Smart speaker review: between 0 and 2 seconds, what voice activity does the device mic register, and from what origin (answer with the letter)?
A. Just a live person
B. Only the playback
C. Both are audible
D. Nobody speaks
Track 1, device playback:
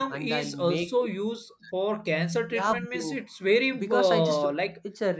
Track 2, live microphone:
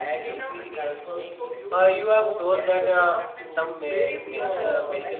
C